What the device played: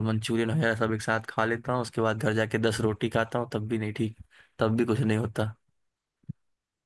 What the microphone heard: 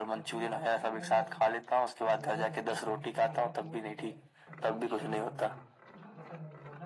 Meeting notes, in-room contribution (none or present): present